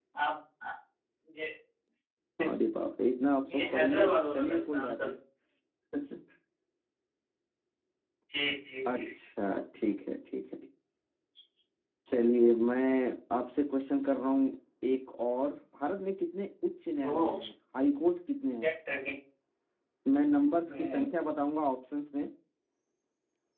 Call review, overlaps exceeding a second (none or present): present